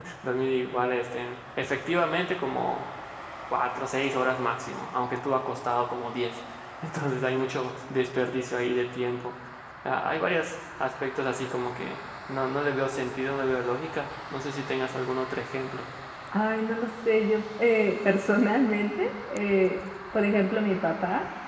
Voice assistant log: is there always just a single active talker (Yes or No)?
Yes